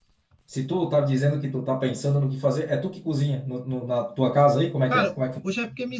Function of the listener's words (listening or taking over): taking over